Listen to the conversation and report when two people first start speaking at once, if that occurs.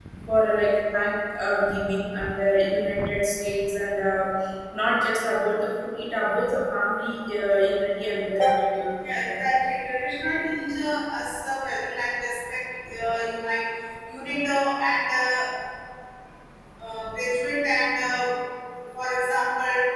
none

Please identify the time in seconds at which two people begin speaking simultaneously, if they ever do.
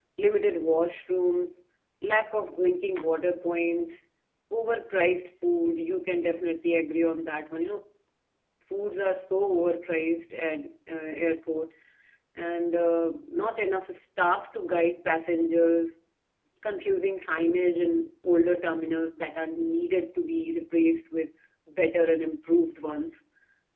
none

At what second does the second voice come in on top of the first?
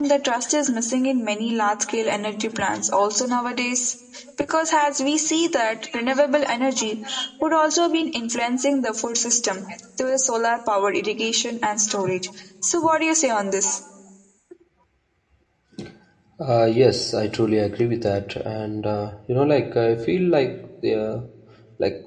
none

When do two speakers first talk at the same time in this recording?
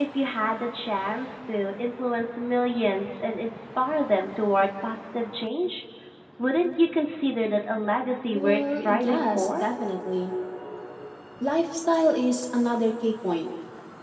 8 s

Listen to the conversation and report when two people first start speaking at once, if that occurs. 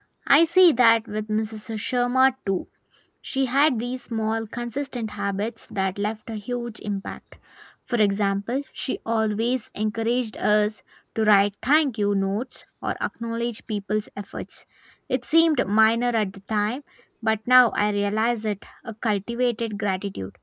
none

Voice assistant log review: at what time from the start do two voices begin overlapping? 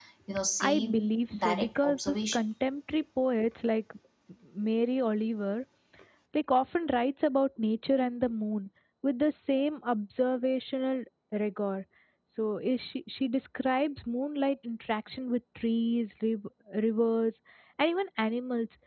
1 s

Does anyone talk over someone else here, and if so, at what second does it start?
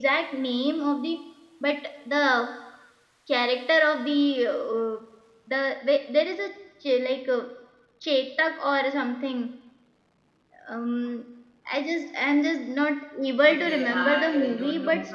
13 s

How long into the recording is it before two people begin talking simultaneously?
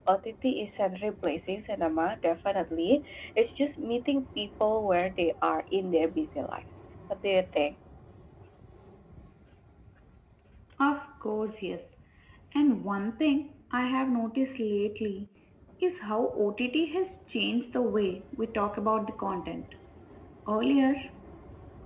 none

